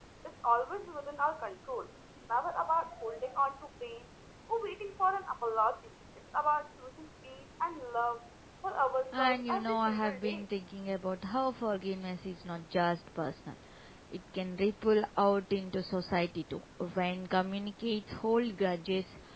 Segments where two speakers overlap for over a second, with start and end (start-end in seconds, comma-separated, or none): 9.2-10.4